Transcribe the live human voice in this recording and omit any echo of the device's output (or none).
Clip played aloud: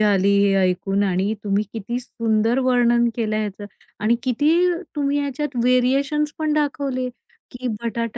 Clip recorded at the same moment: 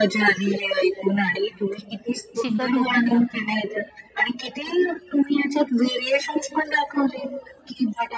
शिकवते त्यांना पण.